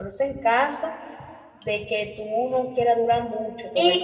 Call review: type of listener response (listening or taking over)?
taking over